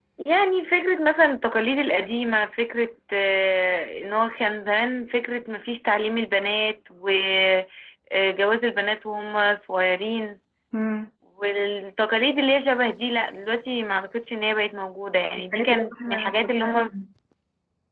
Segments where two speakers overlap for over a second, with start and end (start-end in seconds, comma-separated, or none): 15.5-16.7